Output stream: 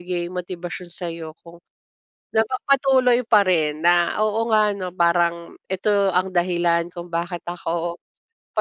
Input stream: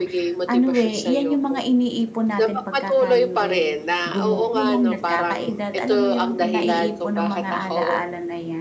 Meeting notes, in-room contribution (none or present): present